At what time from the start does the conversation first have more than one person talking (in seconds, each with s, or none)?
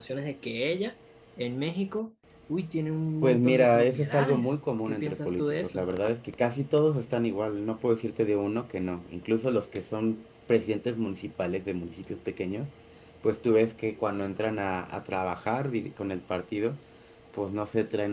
3.2 s